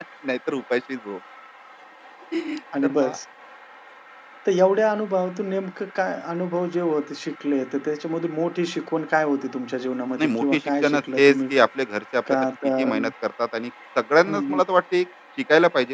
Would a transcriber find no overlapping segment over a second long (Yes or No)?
No